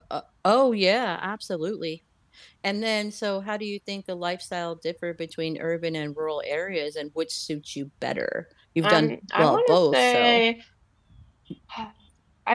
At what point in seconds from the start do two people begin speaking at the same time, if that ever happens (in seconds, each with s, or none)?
8.8 s